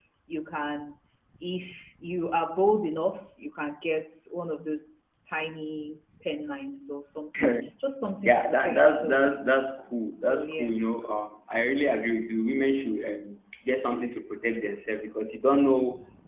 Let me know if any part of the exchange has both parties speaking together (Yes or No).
Yes